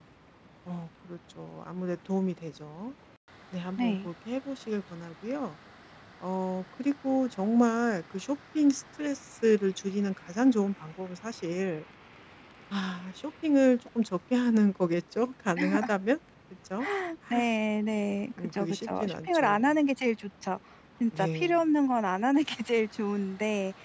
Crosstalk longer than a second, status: present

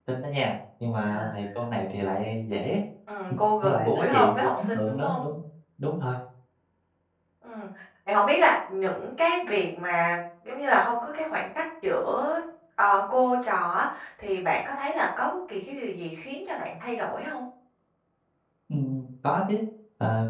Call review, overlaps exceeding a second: present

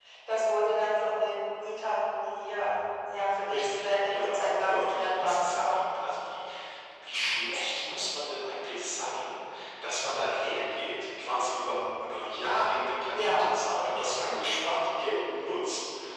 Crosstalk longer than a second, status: present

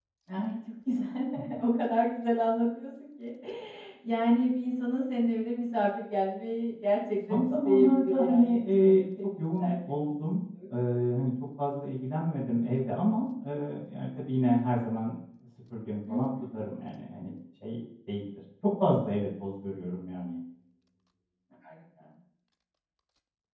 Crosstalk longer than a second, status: present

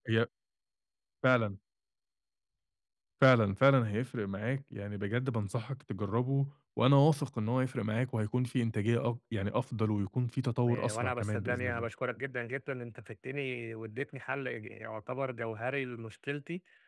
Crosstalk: present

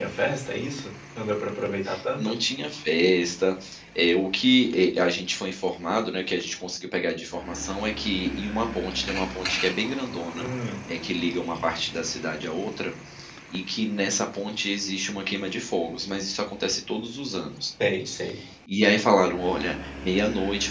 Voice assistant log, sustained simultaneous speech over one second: none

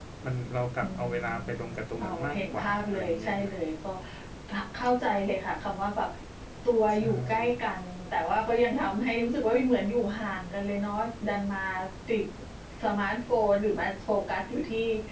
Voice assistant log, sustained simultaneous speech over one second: present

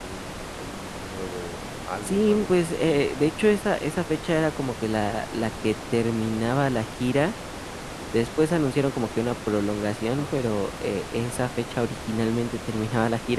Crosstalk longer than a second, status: present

